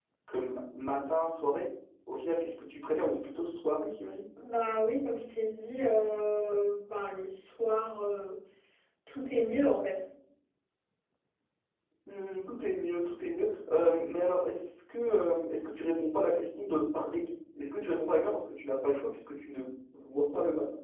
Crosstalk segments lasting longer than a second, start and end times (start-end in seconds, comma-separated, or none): none